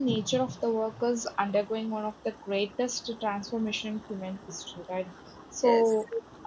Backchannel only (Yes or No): Yes